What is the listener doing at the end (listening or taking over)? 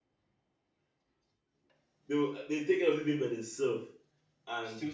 listening